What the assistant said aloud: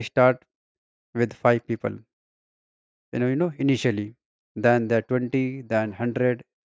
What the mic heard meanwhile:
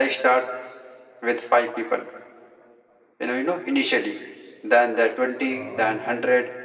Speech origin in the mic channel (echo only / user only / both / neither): both